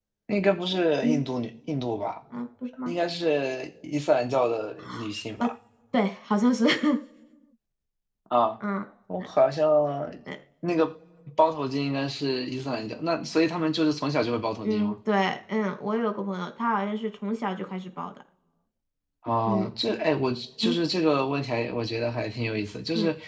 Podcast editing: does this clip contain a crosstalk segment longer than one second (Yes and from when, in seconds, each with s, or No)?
No